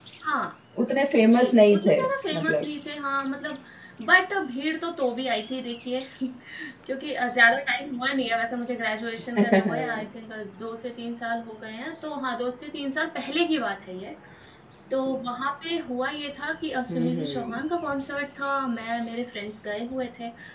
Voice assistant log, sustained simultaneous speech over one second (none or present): present